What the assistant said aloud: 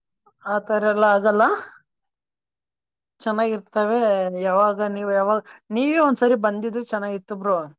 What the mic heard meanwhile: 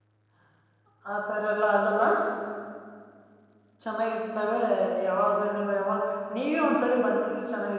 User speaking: No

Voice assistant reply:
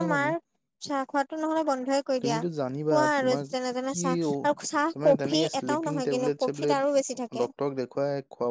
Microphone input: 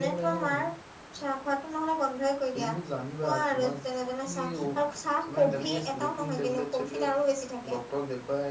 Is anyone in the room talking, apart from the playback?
No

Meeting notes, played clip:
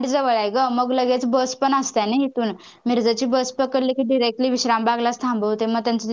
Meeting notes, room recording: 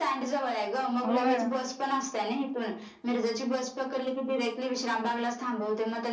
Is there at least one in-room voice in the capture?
Yes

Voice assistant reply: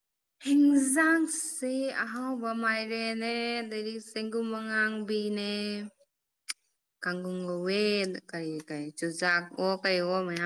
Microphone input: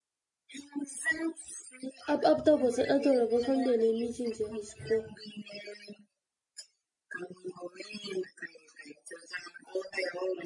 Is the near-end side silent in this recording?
No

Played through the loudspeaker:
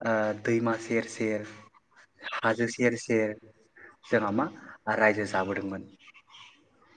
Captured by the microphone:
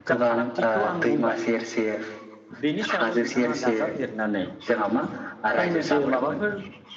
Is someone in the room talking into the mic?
Yes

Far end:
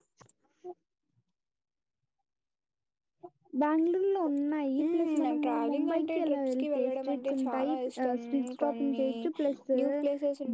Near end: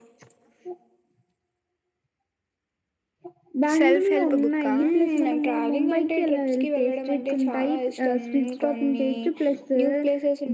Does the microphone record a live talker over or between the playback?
Yes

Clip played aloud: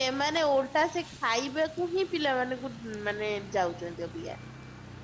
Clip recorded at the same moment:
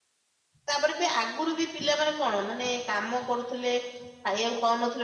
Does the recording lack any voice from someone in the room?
No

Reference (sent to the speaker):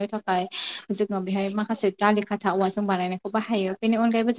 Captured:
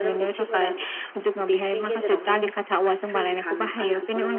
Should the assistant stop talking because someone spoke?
Yes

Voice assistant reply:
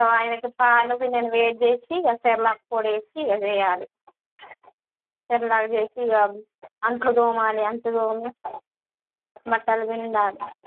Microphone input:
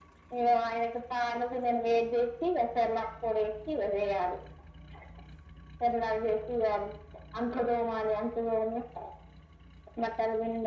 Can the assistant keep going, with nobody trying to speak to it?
Yes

